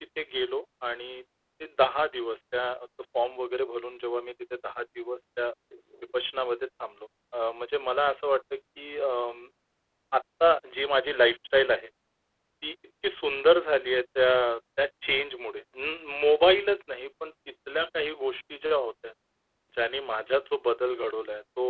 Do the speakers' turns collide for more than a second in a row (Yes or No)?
No